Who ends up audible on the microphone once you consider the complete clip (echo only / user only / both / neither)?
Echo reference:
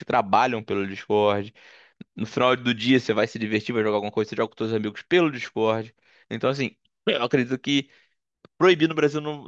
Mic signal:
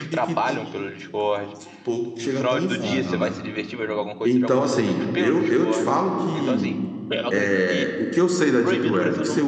both